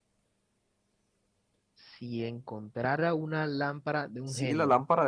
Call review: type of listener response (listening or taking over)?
taking over